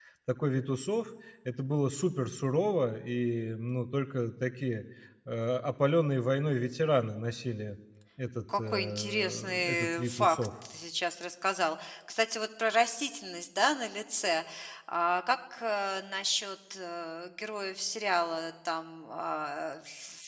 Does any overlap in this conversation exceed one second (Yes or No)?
Yes